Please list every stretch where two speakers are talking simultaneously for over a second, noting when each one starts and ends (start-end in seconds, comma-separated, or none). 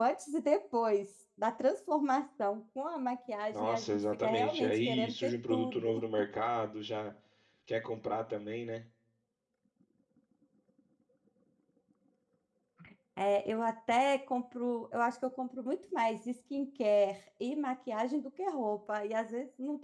3.5-6.0